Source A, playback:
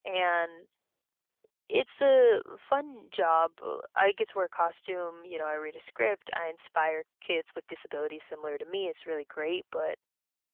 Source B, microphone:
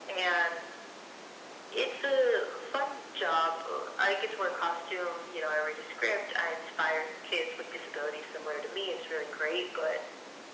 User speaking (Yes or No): No